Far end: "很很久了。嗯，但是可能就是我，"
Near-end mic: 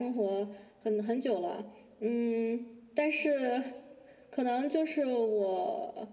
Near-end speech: none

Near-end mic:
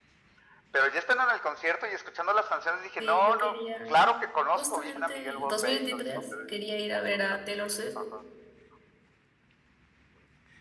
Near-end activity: present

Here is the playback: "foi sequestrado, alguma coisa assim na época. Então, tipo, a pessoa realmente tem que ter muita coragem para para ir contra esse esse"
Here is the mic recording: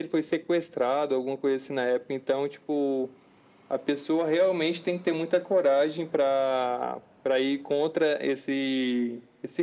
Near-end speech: none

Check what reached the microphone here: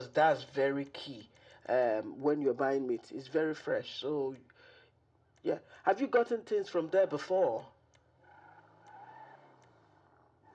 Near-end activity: none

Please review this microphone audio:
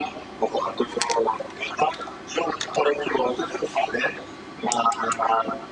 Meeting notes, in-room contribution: none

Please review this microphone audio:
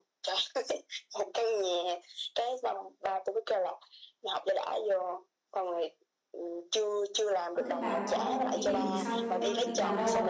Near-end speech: present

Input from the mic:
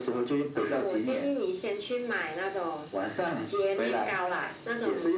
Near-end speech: none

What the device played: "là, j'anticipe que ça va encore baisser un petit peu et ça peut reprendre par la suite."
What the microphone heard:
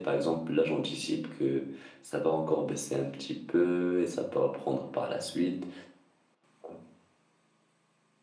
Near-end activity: none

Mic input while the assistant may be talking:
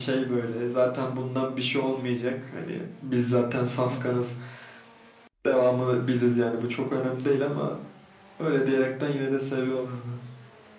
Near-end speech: present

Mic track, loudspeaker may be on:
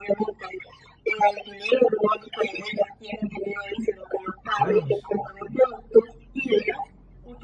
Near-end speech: present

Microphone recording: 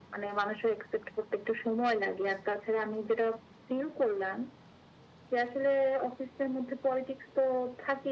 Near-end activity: none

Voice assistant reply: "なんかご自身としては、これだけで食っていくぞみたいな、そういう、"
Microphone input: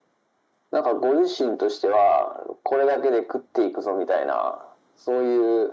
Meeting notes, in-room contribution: none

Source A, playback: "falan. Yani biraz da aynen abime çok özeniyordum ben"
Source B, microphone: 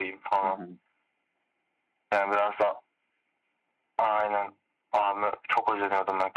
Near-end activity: present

